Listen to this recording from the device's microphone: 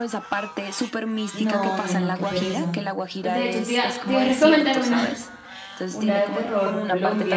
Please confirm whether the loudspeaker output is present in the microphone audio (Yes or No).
Yes